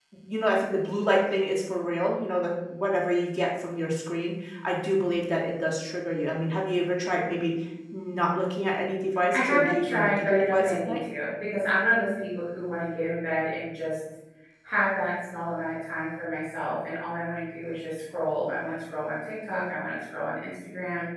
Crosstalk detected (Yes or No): Yes